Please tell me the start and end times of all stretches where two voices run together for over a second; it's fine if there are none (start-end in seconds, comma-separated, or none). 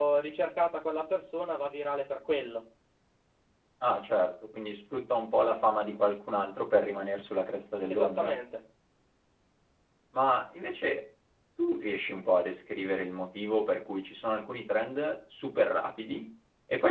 none